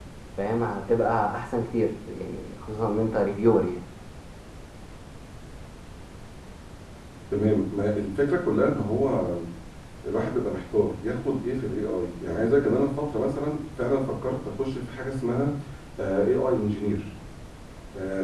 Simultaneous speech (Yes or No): No